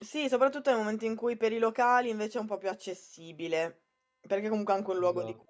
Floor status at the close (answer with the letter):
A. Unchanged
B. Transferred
A